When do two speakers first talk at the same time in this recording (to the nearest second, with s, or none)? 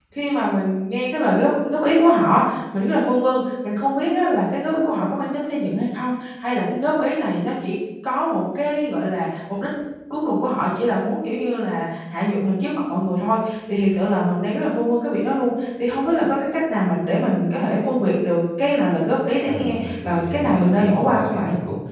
19 s